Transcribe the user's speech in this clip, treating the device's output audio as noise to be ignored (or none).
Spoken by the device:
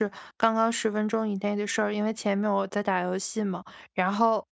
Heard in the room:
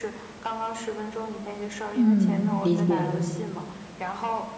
嗯，理解。